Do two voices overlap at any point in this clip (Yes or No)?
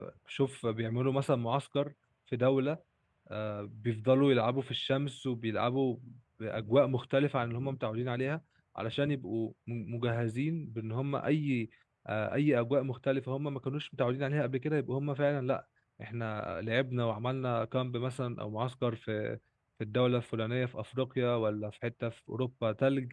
No